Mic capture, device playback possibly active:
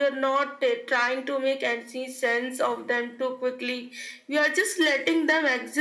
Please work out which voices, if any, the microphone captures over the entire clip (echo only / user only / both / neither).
echo only